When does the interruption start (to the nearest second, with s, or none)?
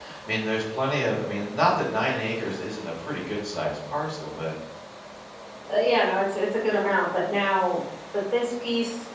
none